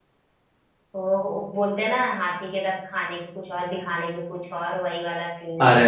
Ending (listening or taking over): taking over